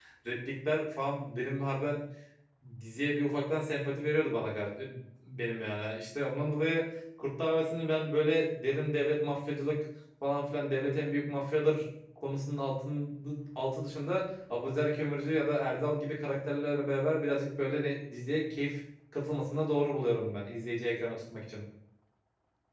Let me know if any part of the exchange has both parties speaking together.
No

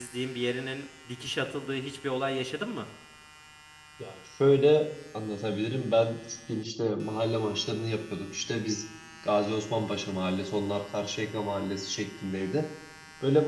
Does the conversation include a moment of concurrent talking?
No

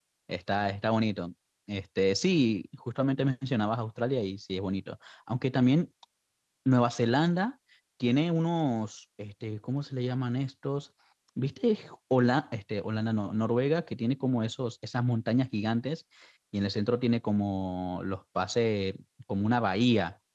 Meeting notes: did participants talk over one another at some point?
No

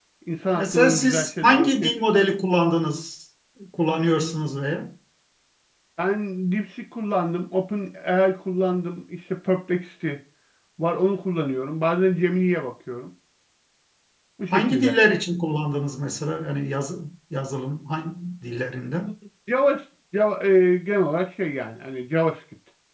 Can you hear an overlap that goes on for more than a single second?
Yes, from 0.6 s

